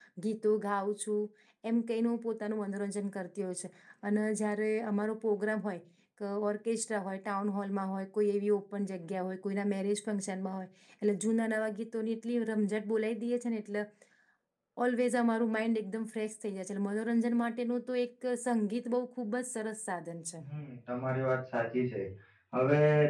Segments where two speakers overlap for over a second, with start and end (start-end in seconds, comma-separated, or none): none